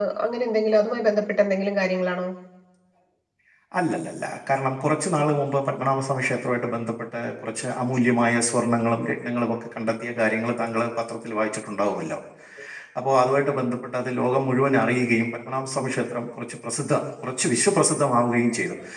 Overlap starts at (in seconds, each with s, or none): none